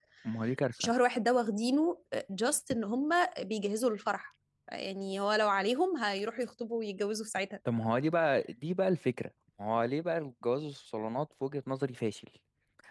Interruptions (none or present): none